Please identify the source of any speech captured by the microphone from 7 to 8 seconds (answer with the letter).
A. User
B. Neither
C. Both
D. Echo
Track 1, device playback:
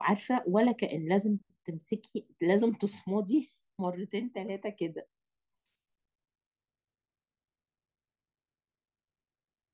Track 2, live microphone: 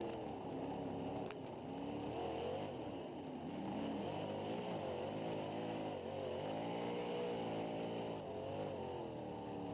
B